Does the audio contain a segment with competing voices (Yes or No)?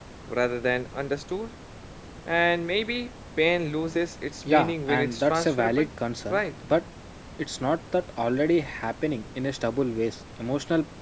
Yes